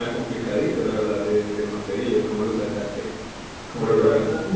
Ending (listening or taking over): taking over